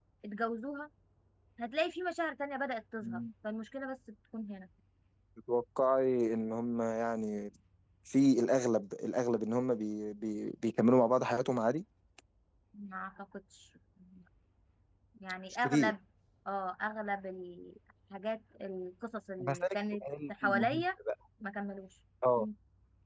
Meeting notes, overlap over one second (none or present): present